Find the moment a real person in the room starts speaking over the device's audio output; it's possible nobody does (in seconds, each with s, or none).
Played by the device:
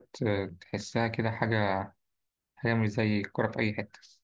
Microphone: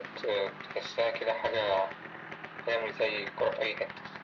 none